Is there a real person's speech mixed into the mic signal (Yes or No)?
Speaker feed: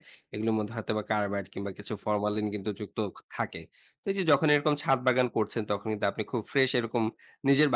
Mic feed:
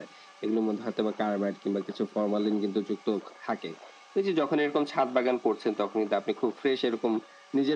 No